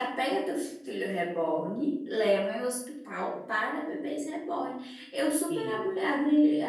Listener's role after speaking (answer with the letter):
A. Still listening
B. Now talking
A